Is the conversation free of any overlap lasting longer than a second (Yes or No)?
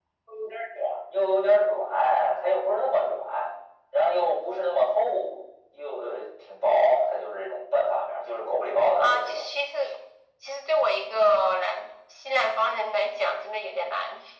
Yes